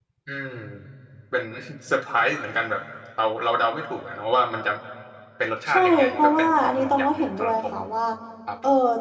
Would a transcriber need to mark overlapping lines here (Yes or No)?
Yes